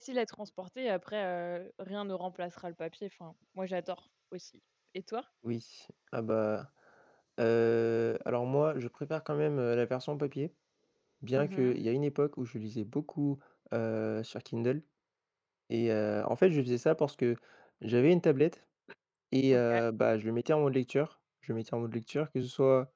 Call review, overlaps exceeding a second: none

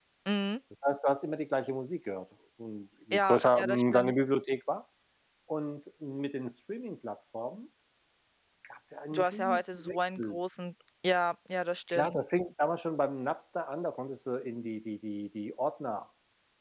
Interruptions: present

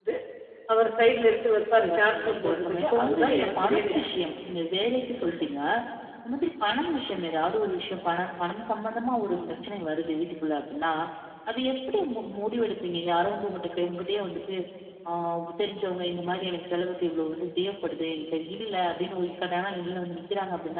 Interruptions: present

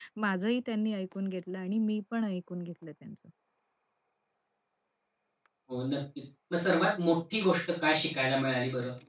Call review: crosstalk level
none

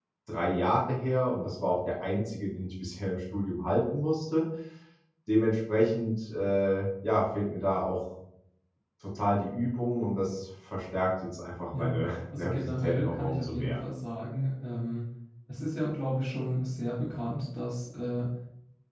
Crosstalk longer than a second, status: present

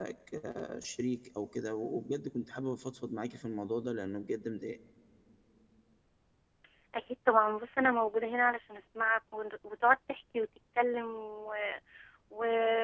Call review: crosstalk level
none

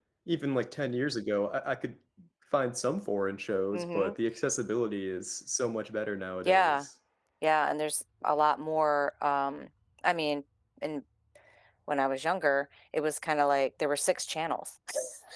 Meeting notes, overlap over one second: none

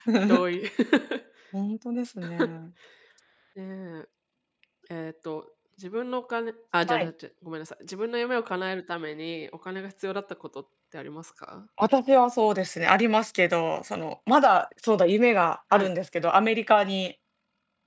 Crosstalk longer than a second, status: none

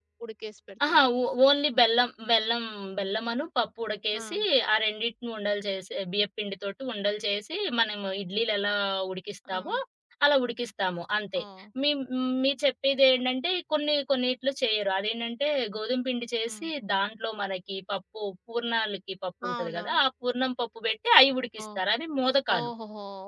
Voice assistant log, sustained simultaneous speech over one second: none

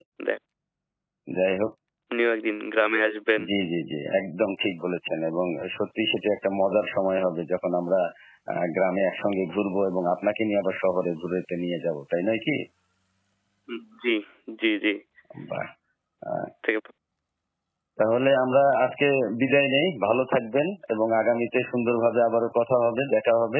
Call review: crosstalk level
none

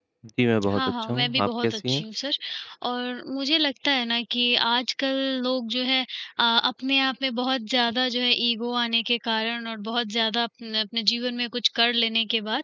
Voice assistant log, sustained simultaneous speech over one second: present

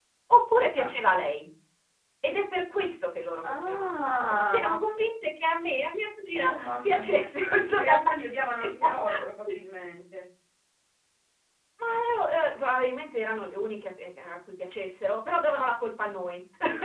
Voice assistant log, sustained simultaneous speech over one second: present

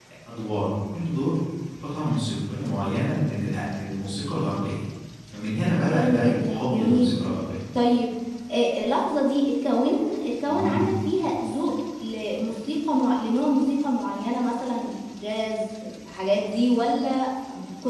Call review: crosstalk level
present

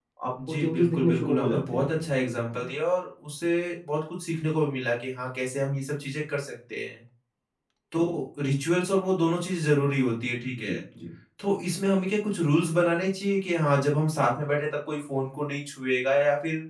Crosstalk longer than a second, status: present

